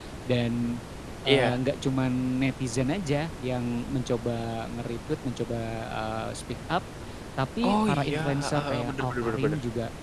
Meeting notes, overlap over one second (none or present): present